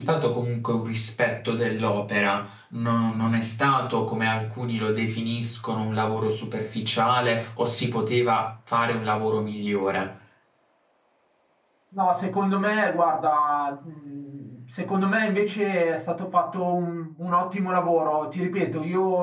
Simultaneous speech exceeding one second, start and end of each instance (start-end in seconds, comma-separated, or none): none